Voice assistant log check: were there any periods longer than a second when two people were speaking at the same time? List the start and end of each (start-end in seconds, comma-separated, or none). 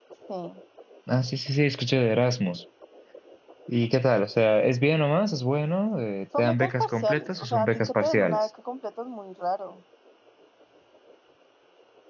6.4-8.5